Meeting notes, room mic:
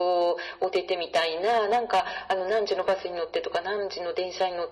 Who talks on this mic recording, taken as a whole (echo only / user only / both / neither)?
echo only